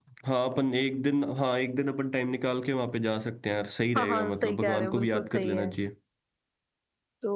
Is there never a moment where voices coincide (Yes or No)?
No